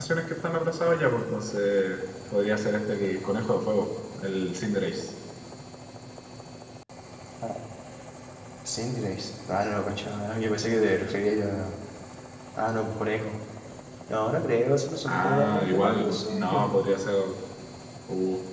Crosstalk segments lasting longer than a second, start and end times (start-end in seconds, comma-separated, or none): 15.1-16.7